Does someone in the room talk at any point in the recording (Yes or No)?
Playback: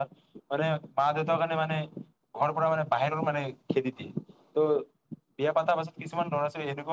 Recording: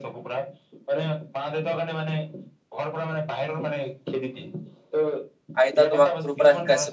Yes